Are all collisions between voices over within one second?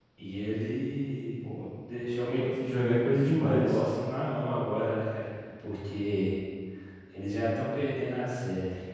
Yes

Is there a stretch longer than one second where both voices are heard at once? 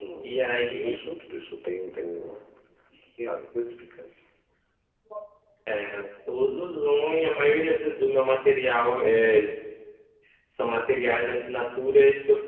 No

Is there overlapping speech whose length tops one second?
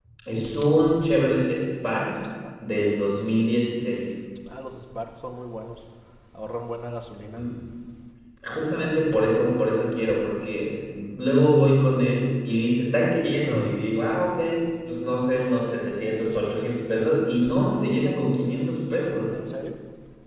No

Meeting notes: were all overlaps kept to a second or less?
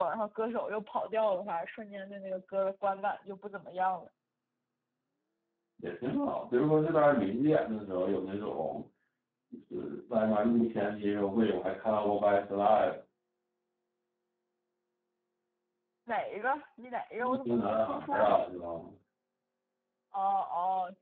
No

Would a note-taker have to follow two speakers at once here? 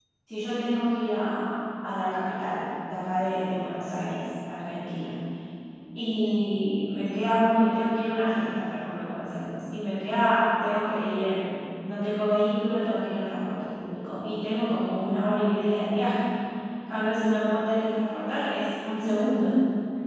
No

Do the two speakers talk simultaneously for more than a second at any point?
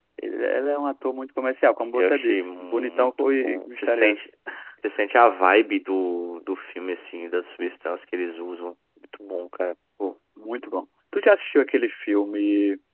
Yes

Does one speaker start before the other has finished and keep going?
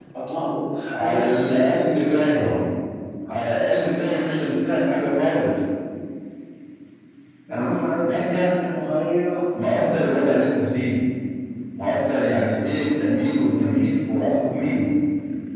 Yes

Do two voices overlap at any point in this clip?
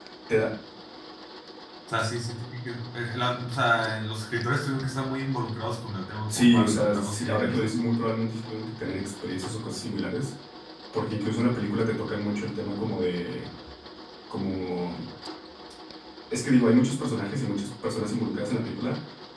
Yes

